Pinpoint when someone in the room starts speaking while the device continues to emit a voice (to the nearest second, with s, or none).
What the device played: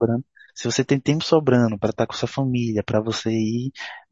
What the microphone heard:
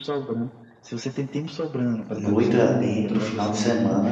2 s